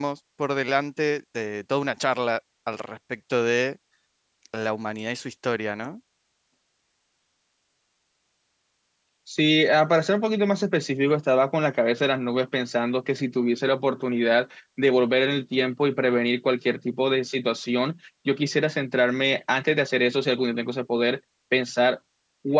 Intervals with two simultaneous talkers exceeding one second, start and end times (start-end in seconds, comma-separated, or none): none